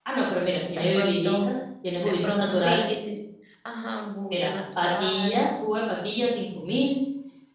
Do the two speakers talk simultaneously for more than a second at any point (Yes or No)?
Yes